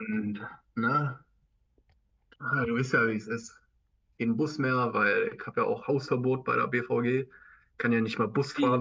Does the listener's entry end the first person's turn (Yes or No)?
Yes